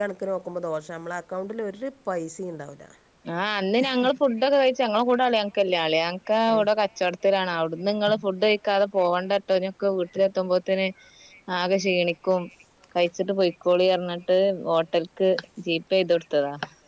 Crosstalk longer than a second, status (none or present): none